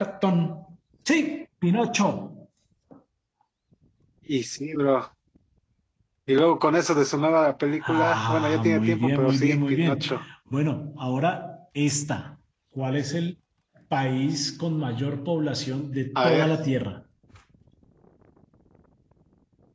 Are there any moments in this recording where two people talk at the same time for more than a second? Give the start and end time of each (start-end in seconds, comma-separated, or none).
7.8-10.2